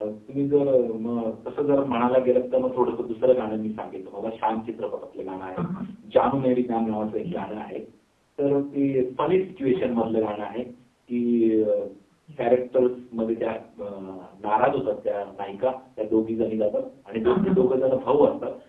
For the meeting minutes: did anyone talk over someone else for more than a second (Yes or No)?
No